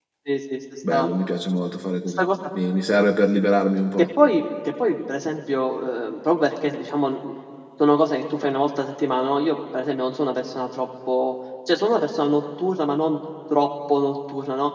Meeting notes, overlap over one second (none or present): none